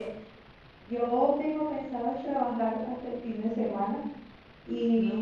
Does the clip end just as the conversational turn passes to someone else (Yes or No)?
No